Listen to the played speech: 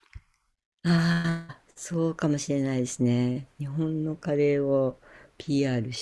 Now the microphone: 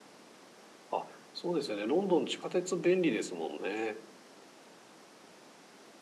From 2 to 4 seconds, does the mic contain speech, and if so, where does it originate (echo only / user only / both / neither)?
user only